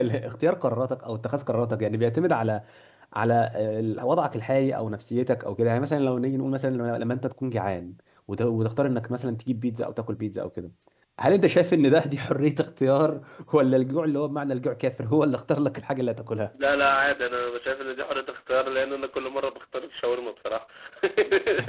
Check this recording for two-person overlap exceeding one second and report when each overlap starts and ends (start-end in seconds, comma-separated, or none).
none